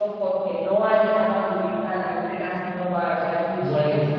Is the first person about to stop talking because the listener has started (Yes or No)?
No